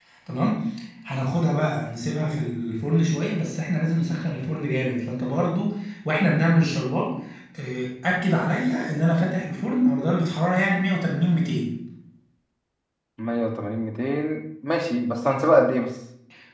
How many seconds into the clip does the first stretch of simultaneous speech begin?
none

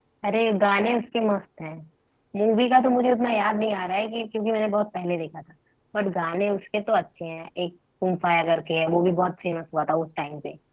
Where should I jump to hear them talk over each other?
none

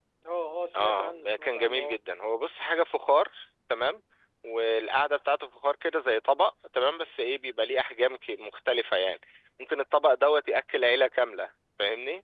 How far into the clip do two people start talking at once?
0.8 s

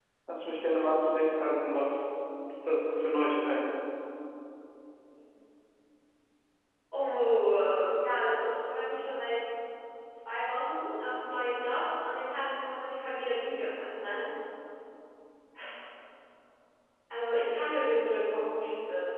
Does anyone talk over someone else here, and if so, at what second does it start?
none

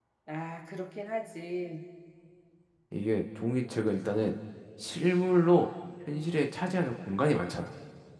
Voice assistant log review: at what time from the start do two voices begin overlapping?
none

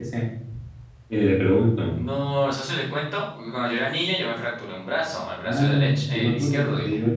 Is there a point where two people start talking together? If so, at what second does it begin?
5.4 s

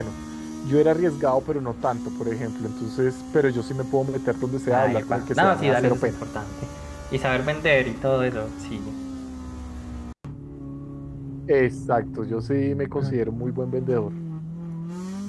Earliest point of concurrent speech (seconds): 4.7 s

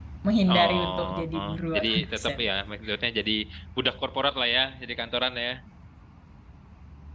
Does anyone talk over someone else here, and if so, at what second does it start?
0.5 s

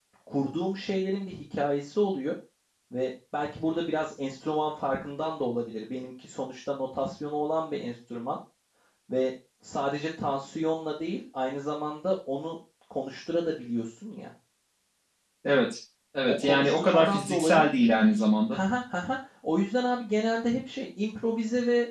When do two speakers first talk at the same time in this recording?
16.3 s

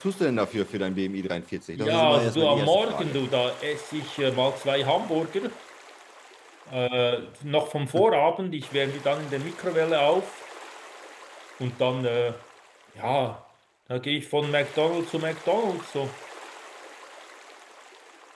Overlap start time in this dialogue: 1.8 s

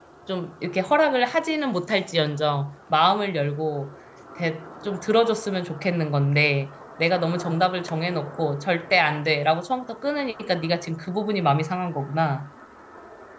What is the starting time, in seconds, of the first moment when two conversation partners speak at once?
none

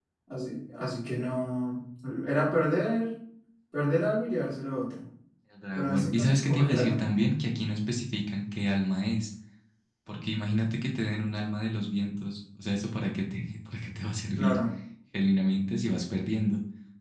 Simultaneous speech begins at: 5.8 s

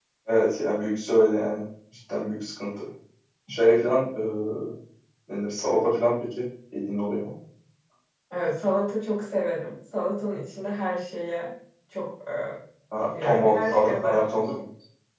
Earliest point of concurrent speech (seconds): 13.2 s

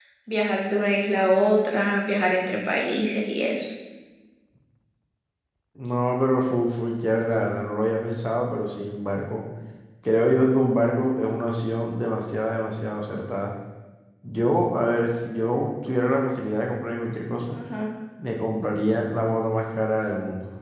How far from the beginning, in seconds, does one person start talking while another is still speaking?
none

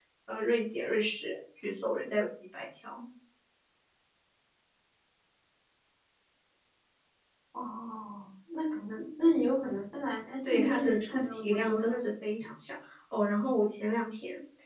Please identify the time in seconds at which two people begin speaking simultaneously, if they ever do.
10.4 s

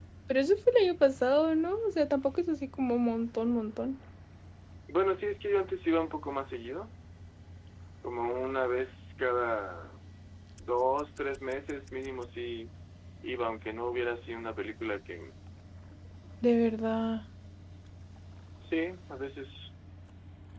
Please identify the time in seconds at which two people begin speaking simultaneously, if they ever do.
none

